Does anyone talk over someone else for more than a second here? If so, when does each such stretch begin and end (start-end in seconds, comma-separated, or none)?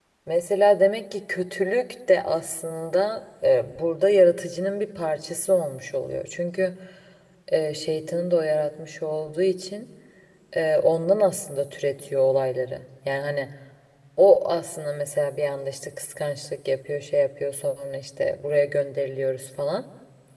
none